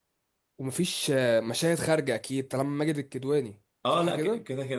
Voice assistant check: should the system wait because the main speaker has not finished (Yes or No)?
No